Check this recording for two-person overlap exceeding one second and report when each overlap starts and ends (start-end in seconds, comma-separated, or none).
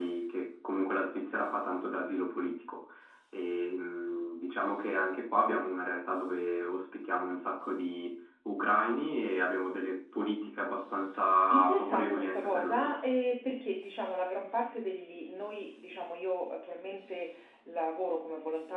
11.5-12.9